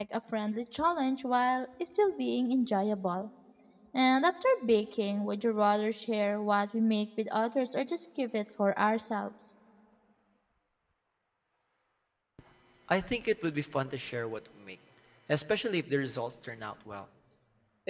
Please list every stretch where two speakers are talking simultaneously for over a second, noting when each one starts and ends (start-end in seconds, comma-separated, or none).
none